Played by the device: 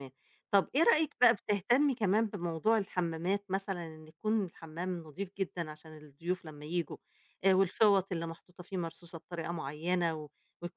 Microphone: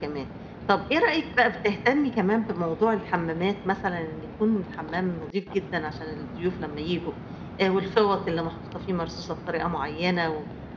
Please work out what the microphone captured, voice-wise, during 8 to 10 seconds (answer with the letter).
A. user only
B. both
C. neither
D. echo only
D